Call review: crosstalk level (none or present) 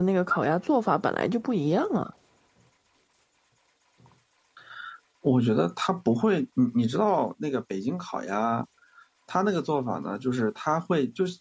none